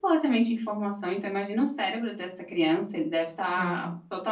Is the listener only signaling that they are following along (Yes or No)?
Yes